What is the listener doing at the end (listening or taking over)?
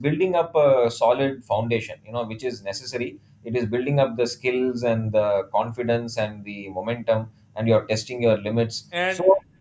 listening